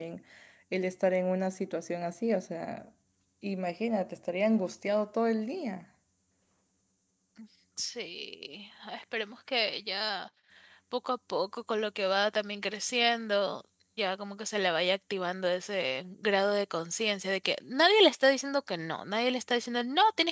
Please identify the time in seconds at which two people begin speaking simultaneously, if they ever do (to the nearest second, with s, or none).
none